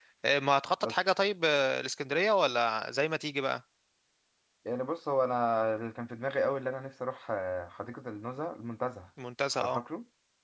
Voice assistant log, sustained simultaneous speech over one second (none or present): none